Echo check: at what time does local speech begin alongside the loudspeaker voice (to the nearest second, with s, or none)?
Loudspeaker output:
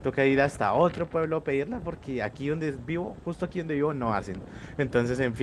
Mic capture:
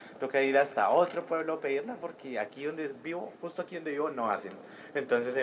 none